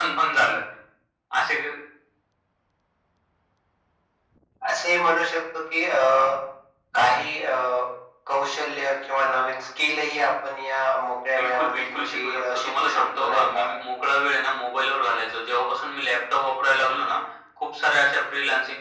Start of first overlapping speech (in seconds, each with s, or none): 11.3 s